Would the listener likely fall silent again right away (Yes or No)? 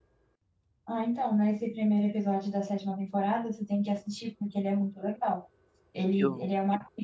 Yes